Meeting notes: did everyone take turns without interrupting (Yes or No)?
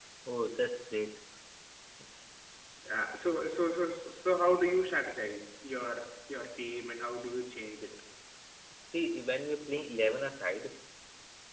Yes